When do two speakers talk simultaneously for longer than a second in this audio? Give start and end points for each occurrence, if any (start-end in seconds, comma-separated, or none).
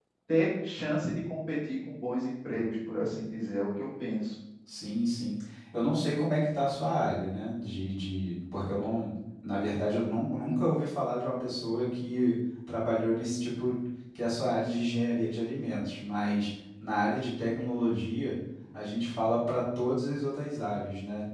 none